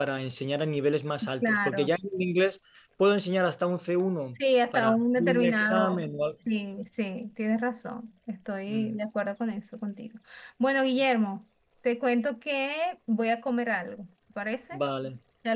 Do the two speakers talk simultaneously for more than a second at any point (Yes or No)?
Yes